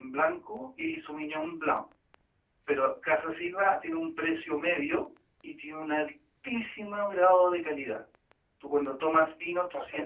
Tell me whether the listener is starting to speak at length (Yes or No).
No